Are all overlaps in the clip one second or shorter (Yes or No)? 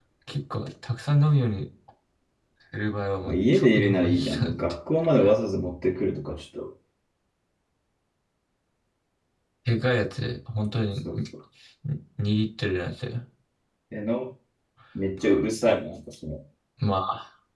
No